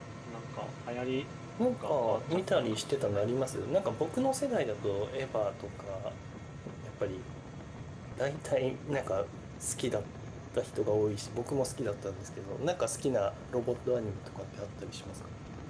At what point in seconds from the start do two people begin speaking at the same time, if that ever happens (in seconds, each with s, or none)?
1.8 s